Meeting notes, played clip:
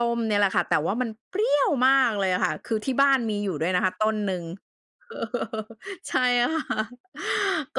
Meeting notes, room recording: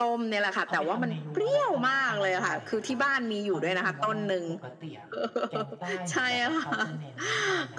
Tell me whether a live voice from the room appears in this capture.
Yes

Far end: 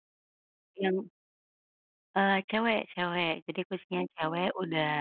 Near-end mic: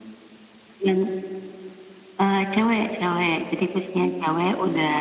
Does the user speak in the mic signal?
No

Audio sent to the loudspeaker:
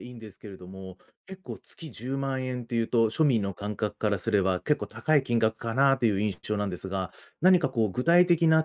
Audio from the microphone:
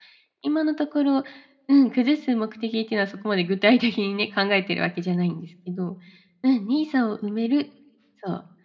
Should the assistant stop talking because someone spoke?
Yes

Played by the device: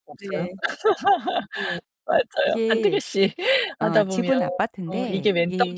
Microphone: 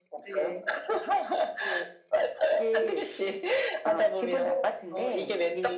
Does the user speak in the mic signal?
No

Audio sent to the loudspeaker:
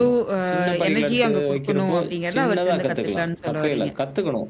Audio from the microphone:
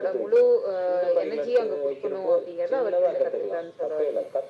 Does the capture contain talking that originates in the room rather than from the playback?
No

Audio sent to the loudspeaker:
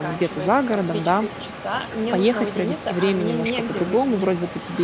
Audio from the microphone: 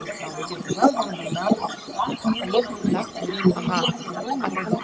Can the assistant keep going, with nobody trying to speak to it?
No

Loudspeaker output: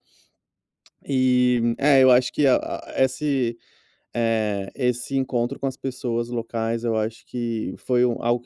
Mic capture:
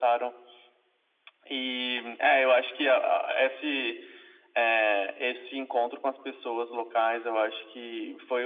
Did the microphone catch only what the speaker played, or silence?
Yes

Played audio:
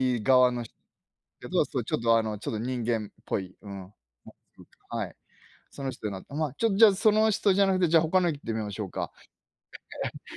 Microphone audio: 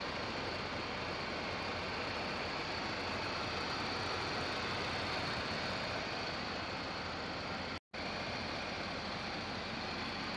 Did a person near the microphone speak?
No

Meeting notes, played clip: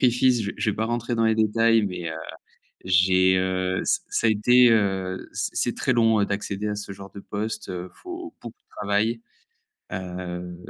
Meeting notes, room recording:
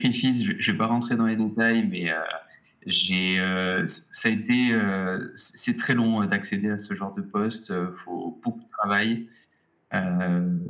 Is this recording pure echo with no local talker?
Yes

